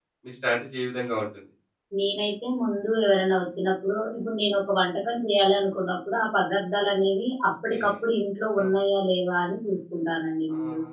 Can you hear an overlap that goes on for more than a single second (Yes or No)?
No